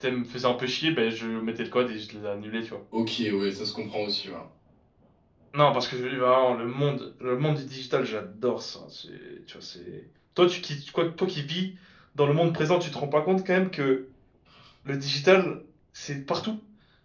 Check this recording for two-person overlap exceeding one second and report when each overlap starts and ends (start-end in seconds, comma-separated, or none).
none